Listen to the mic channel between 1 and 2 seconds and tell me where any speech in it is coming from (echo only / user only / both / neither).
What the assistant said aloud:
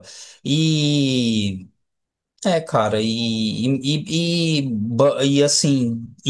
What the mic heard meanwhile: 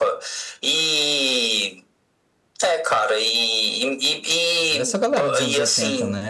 echo only